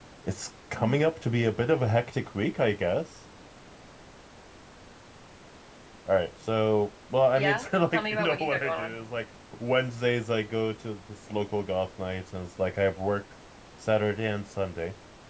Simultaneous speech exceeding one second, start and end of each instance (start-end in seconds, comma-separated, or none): 7.3-8.9